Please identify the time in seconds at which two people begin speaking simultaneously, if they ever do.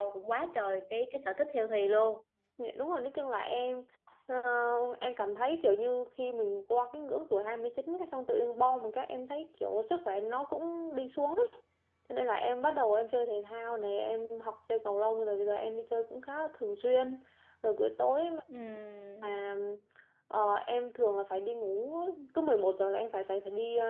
none

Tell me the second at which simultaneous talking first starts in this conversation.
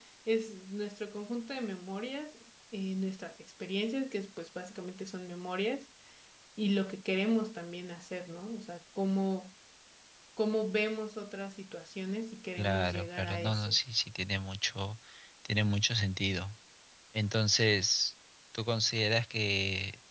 12.6 s

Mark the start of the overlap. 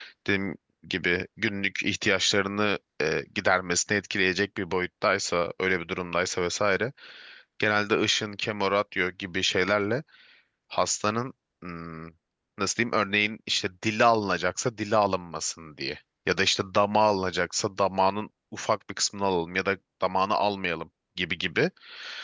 none

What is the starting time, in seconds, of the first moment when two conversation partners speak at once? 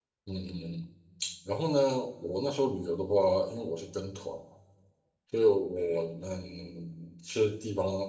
none

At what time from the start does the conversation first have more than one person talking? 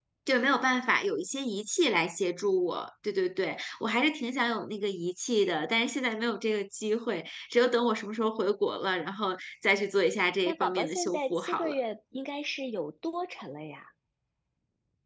10.4 s

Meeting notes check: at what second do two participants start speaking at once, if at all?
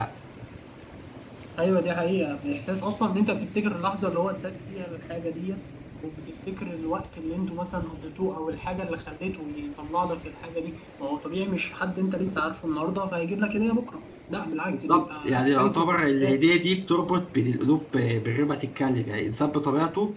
14.7 s

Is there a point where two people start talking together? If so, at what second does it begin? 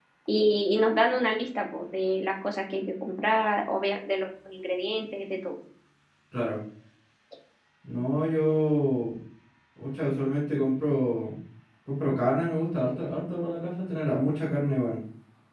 none

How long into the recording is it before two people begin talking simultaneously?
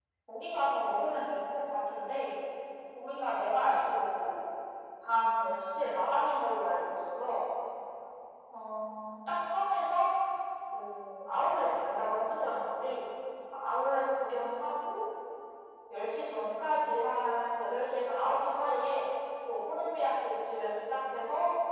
none

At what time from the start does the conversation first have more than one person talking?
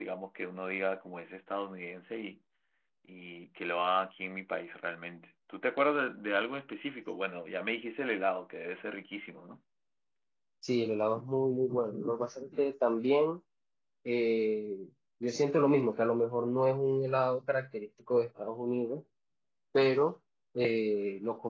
none

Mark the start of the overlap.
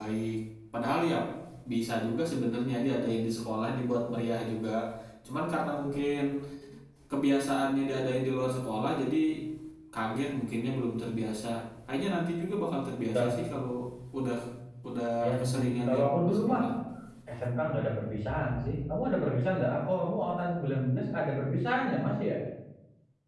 15.2 s

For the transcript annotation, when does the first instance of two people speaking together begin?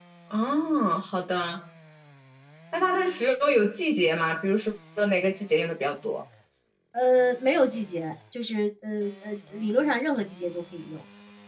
none

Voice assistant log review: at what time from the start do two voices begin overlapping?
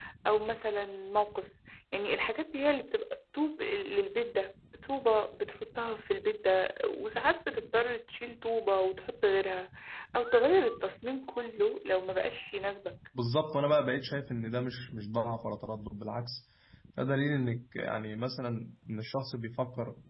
none

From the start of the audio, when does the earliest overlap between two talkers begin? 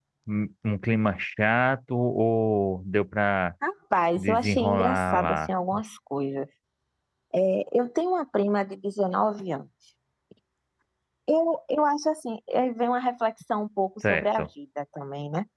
4.2 s

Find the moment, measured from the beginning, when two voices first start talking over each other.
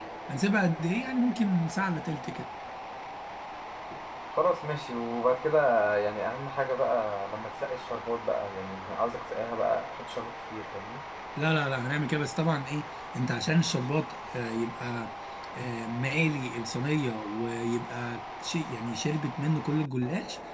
none

